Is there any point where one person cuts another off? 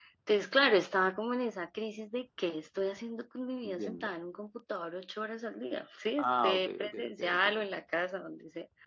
Yes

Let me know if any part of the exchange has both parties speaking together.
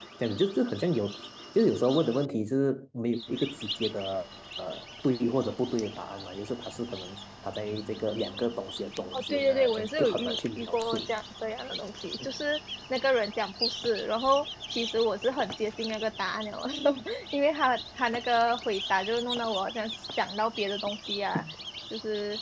Yes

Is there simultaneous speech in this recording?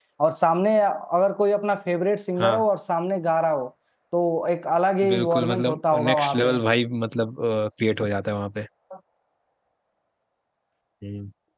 Yes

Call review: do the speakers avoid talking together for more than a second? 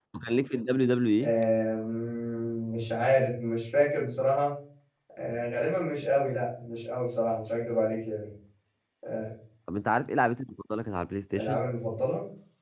Yes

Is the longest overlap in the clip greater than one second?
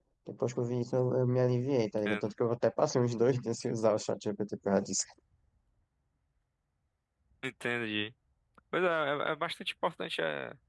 No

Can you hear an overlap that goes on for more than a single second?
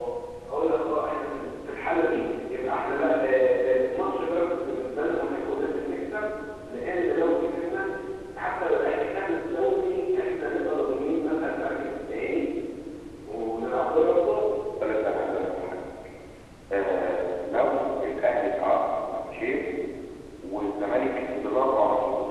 No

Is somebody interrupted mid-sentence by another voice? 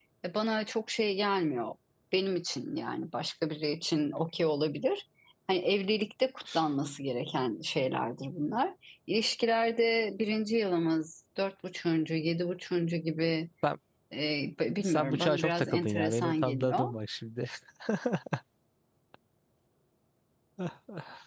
Yes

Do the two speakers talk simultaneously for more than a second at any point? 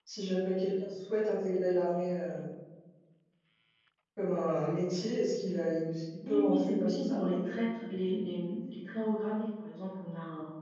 Yes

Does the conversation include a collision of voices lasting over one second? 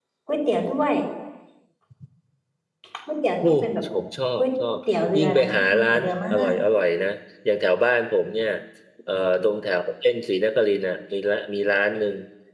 Yes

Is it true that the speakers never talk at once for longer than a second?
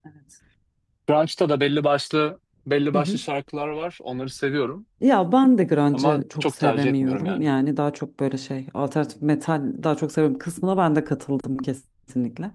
No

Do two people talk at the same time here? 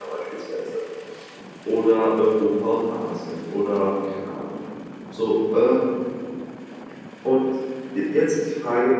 No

